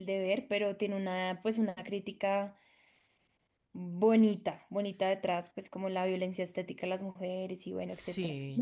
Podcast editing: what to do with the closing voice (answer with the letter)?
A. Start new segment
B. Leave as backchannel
A